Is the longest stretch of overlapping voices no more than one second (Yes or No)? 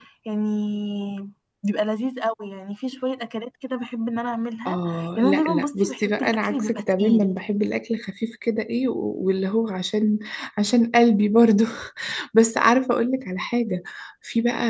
No